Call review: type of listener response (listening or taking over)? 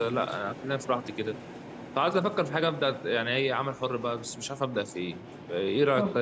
taking over